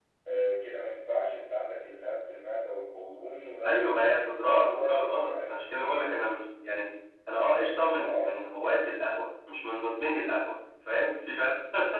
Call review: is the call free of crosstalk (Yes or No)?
No